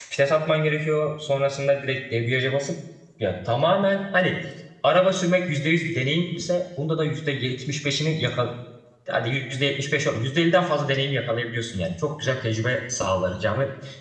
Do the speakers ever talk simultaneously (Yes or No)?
No